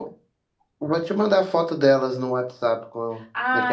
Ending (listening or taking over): taking over